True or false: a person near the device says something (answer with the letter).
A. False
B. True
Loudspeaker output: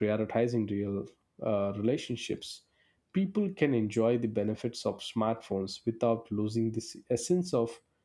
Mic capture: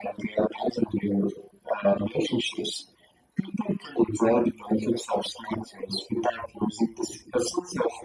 A